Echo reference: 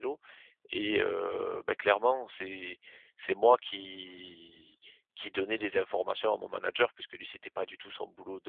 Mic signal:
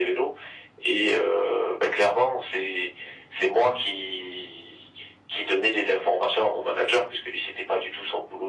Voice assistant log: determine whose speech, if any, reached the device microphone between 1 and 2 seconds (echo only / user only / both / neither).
echo only